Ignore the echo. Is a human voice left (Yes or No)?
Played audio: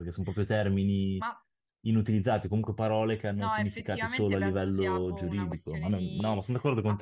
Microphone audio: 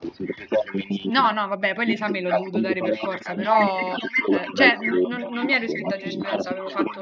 Yes